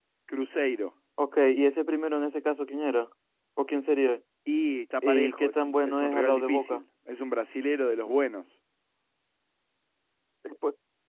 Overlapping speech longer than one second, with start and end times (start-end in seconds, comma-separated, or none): 5.0-6.8